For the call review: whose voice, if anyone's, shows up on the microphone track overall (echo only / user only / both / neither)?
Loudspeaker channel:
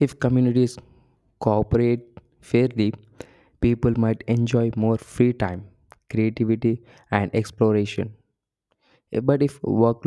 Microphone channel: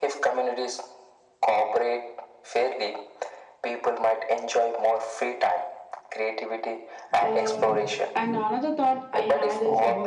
both